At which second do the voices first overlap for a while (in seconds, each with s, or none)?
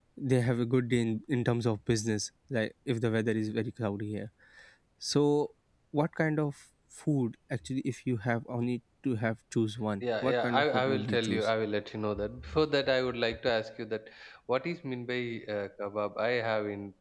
10.0 s